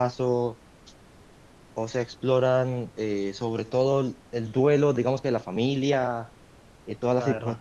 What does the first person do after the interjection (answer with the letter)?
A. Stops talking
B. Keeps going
B